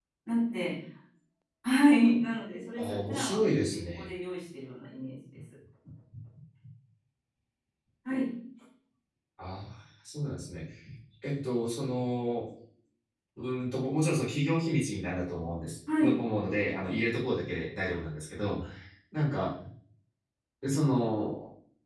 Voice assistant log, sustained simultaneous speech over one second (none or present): present